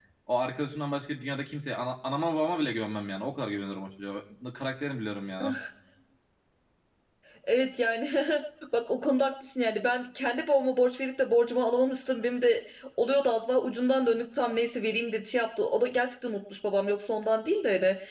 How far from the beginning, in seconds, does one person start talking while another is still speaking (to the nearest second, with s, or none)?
none